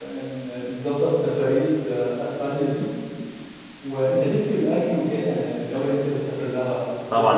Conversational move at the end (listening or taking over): taking over